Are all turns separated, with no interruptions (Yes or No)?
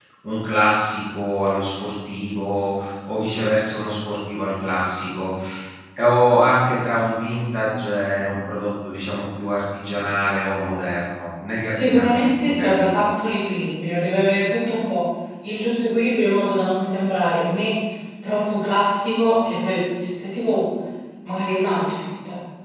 No